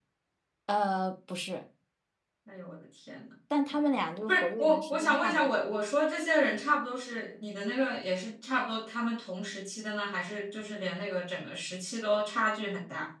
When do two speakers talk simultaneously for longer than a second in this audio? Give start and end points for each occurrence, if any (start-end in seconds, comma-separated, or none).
4.3-5.6